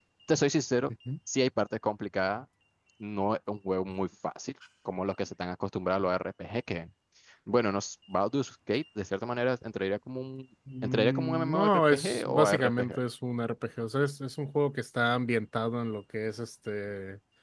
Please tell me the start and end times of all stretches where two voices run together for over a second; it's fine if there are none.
10.8-13.0

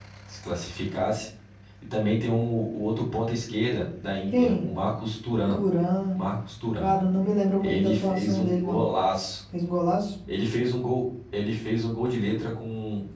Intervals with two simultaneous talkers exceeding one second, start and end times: 7.6-8.9

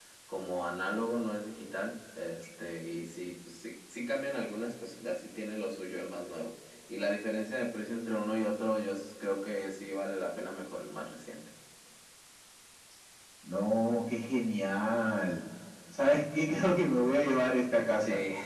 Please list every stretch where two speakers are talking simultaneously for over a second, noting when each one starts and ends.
none

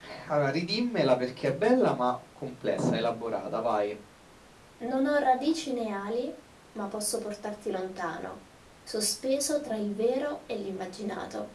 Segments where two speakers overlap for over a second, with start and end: none

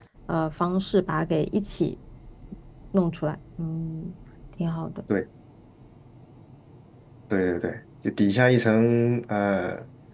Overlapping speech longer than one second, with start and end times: none

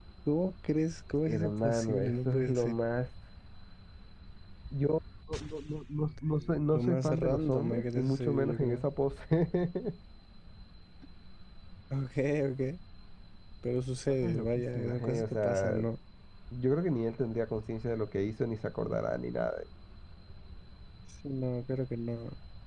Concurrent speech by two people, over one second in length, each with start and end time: 1.3-2.7, 6.7-8.9, 14.1-15.8

